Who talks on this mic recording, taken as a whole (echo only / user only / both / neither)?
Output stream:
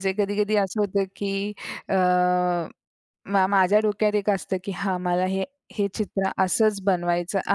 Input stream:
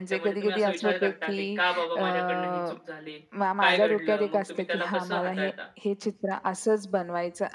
both